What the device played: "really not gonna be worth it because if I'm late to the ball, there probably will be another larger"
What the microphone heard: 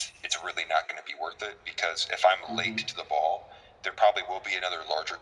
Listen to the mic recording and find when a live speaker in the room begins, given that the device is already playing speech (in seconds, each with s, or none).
2.5 s